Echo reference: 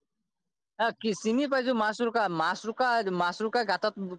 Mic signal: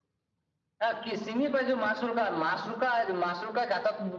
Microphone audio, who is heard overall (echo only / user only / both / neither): echo only